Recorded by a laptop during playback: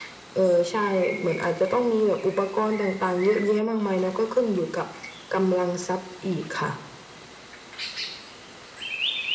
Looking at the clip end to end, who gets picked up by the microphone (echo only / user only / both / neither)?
echo only